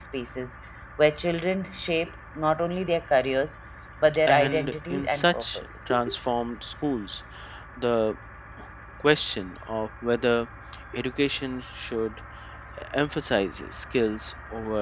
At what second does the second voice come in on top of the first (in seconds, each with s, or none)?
4.3 s